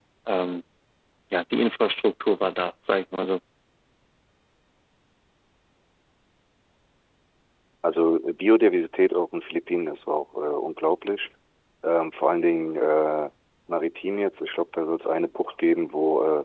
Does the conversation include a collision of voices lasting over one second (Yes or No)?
No